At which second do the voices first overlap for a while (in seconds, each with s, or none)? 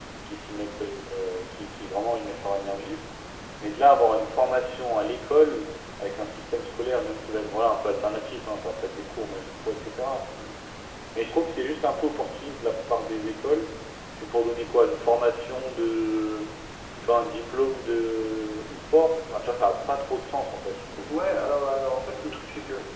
none